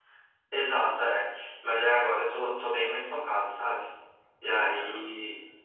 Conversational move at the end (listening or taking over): listening